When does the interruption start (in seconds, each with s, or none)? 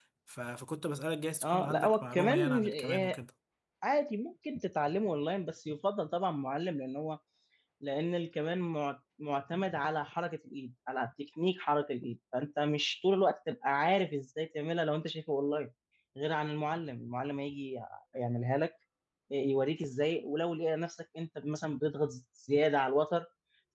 1.4 s